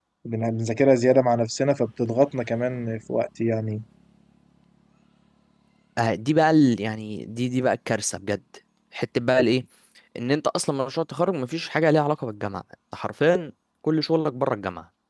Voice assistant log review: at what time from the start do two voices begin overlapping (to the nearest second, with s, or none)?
none